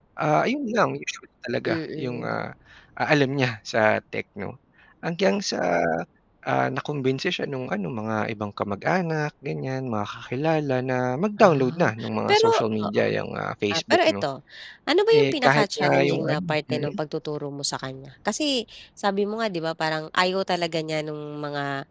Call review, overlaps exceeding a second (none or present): present